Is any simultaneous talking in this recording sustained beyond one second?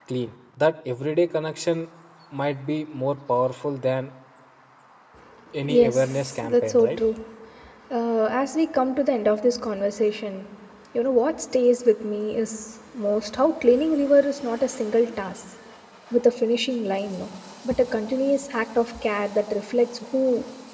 Yes, from 5.6 s

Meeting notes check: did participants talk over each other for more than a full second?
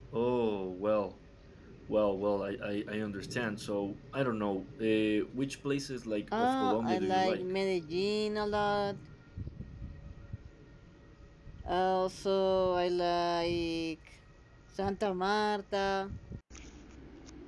Yes, from 6.3 s

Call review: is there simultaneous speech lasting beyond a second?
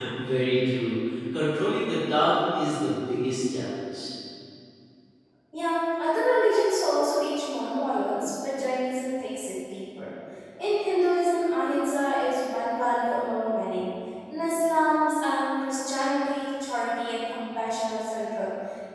No

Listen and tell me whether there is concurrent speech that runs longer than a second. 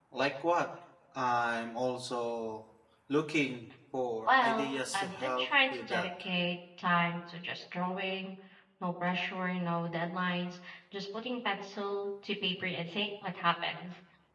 Yes, from 4.2 s

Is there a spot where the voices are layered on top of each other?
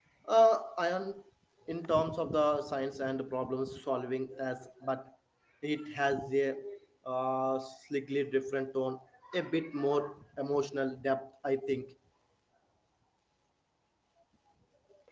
No

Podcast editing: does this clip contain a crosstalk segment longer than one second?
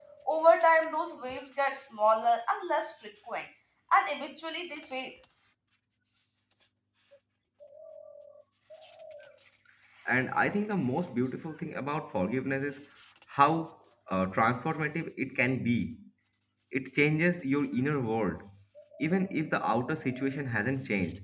No

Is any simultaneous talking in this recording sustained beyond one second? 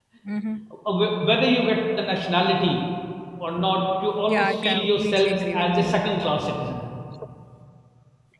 Yes, from 4.3 s

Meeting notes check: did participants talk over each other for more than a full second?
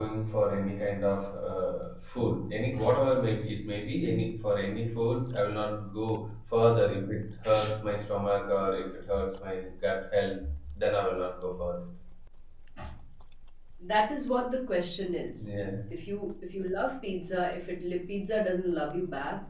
No

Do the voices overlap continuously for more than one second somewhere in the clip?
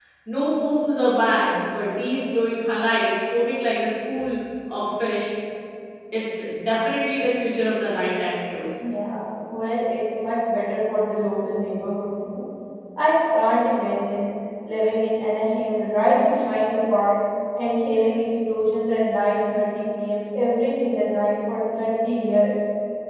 No

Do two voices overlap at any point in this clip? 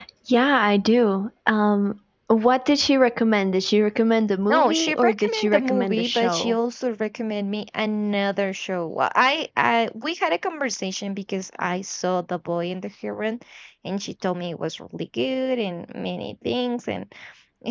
Yes, from 4.5 s

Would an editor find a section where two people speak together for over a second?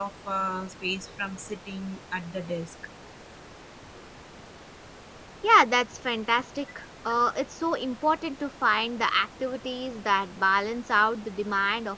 No

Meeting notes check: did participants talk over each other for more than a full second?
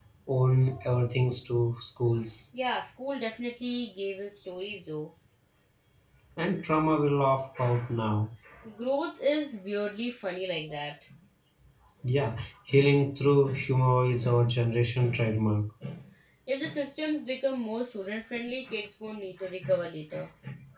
No

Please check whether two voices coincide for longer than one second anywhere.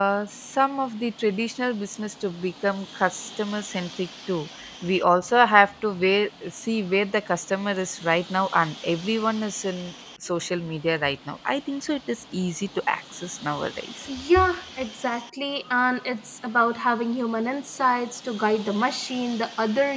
No

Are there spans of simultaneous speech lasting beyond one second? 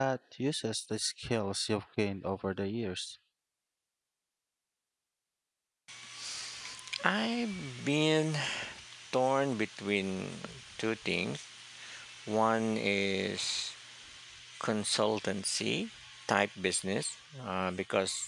No

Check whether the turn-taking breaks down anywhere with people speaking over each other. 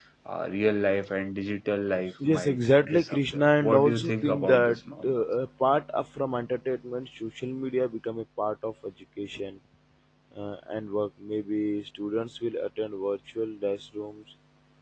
Yes, from 2.2 s

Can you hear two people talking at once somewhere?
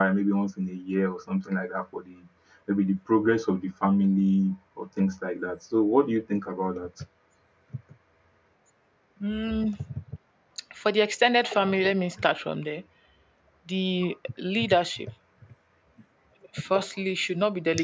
No

